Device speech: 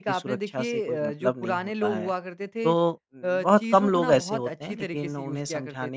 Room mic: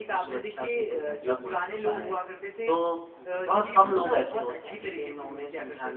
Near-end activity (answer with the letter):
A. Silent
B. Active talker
A